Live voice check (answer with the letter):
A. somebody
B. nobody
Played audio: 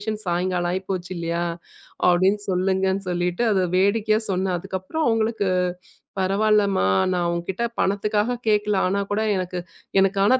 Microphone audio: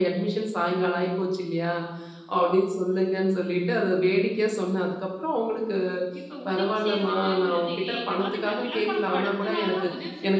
A